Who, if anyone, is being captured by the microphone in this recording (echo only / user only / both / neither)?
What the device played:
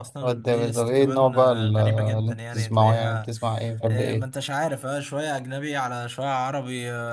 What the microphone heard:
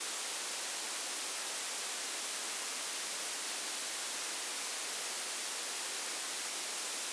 neither